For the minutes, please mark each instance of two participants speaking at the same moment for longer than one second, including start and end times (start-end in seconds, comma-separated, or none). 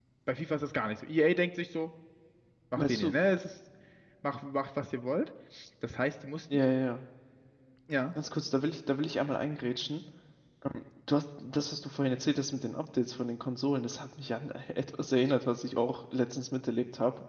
none